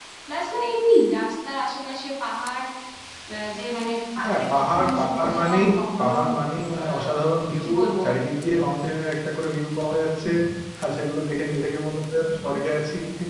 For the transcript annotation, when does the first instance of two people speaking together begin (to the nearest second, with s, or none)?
4 s